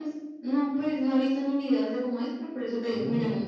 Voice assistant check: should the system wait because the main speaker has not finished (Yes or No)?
Yes